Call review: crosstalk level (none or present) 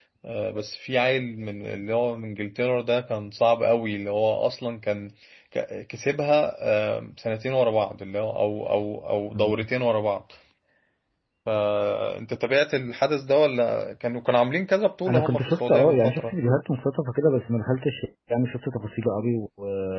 present